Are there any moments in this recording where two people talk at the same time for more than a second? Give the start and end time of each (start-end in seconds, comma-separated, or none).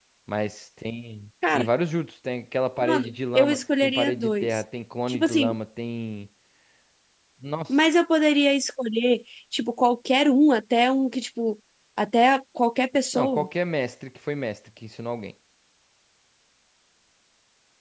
2.8-4.6